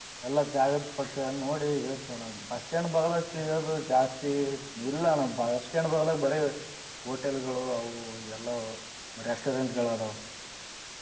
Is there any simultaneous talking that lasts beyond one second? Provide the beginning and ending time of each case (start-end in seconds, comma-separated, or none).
none